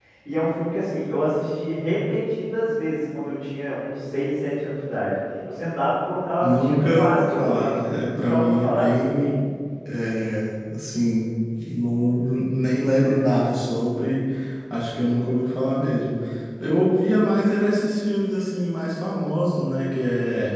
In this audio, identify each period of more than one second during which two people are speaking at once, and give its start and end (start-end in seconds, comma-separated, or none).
6.4-9.3